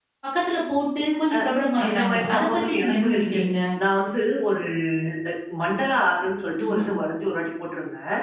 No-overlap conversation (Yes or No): No